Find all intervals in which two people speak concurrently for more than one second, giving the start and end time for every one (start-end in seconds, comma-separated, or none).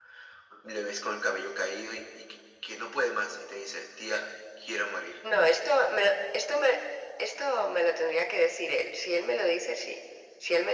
none